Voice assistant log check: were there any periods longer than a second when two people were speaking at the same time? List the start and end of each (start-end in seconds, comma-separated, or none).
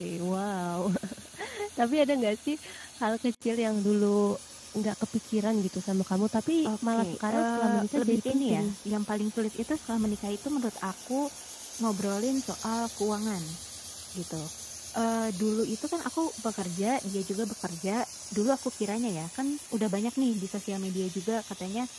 6.7-8.7